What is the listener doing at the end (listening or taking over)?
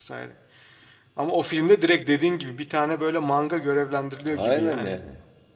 taking over